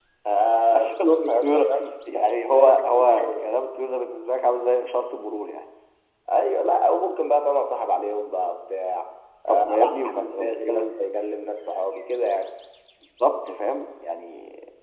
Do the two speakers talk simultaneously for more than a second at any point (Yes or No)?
Yes